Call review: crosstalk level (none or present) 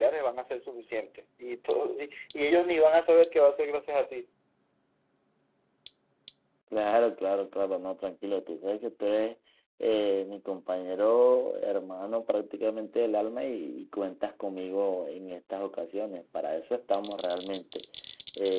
none